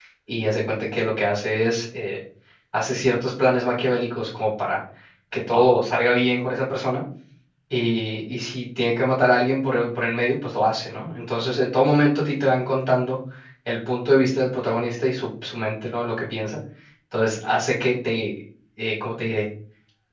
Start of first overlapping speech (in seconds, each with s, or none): none